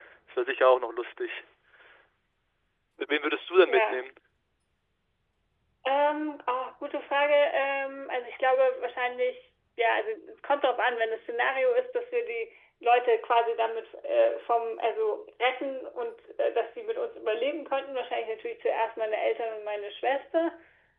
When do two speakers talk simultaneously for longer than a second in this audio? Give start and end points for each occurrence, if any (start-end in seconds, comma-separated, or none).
none